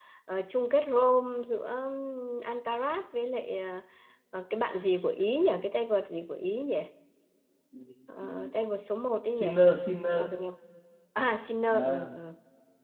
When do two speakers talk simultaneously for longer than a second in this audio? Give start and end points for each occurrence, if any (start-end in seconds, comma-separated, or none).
none